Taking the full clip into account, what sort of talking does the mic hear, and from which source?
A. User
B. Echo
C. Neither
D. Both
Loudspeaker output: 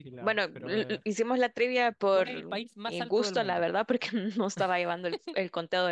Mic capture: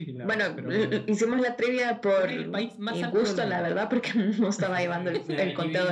D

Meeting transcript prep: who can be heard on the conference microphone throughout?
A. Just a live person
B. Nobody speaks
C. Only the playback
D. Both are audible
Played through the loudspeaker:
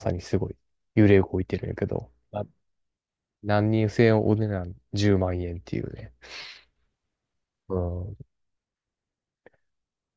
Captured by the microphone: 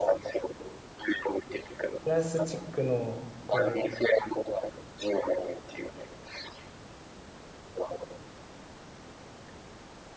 D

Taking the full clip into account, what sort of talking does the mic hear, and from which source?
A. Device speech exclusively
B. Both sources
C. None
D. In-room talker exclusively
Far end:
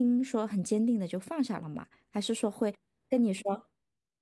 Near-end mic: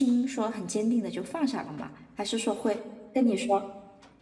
A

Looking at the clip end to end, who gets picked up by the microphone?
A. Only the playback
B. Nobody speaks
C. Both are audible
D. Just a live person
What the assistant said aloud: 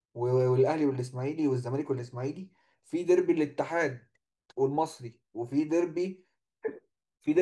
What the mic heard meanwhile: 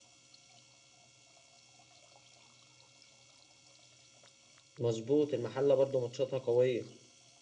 D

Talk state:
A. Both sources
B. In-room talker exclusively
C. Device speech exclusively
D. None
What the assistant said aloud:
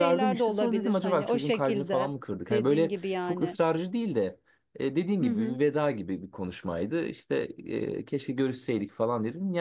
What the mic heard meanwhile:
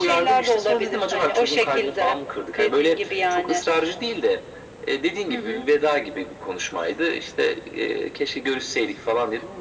C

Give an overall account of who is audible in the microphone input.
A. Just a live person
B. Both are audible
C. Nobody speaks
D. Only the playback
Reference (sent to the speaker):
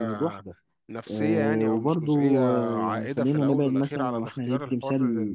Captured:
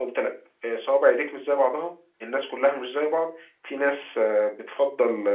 A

